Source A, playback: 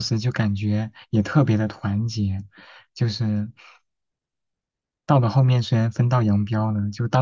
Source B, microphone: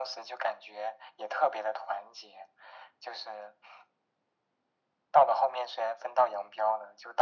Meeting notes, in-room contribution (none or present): none